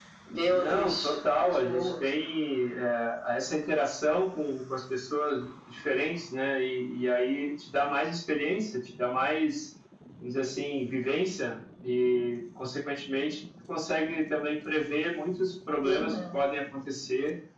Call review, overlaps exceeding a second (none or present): present